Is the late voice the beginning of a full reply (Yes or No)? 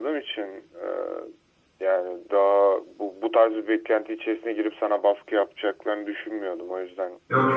Yes